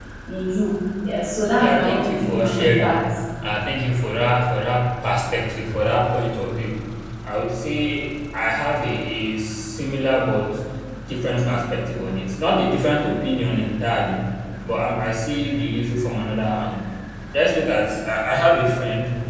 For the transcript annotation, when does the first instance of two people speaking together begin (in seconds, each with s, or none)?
1.6 s